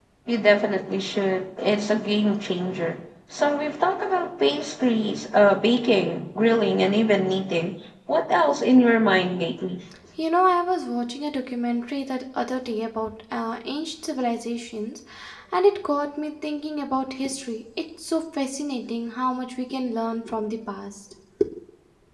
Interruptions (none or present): none